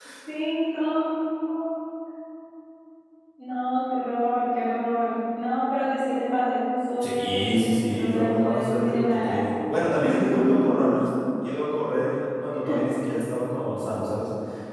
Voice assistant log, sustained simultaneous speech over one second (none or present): present